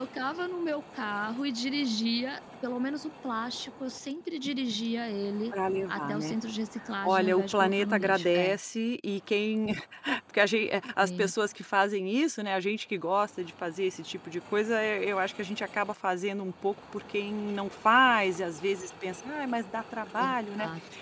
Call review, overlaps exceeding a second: present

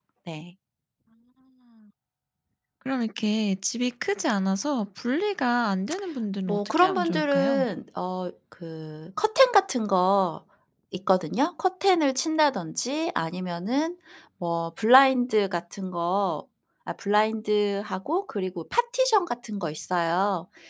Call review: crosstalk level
present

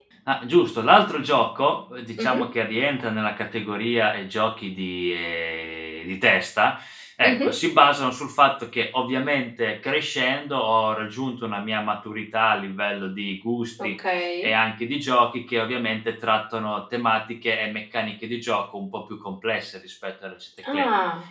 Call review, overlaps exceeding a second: none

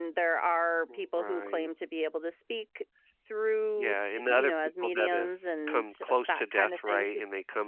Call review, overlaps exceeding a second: present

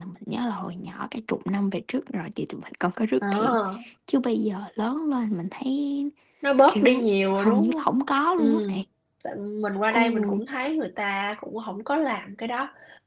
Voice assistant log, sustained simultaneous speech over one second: present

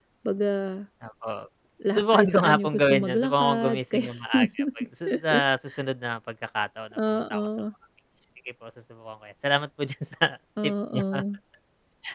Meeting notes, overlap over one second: present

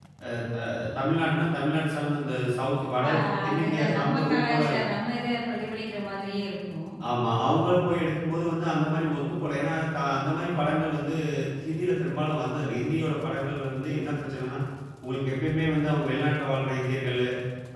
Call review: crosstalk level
present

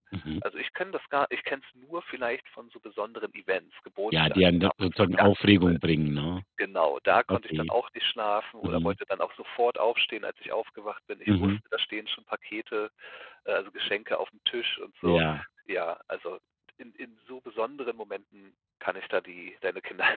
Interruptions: present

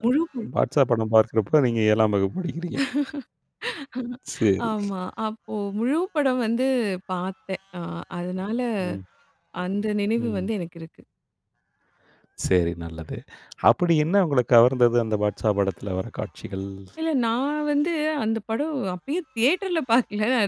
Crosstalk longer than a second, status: none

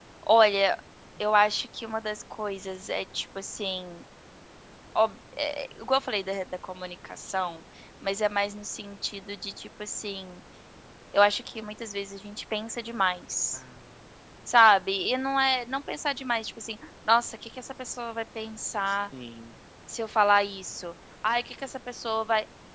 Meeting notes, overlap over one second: none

